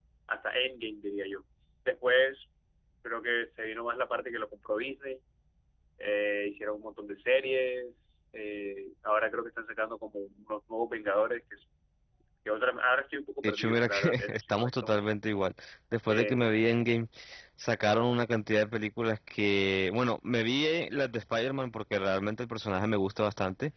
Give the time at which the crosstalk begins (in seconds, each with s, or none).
13.4 s